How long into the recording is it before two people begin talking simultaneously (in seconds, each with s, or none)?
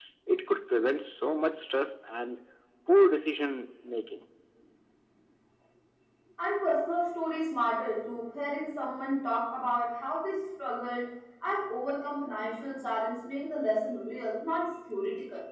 none